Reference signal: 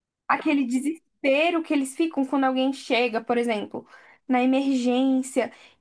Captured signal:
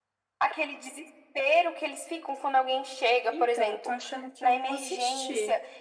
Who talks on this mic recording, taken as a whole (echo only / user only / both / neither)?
both